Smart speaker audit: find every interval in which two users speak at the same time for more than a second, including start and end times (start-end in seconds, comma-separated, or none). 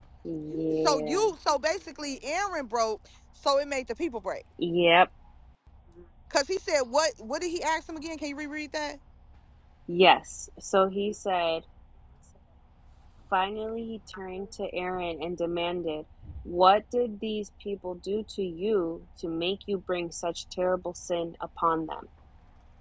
none